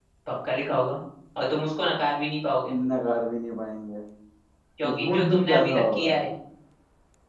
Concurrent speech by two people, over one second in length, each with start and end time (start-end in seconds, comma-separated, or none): 4.8-6.1